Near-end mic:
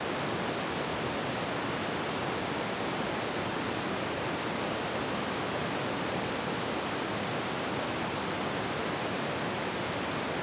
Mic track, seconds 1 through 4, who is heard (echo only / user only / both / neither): neither